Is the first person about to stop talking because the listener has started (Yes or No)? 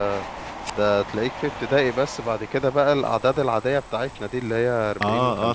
Yes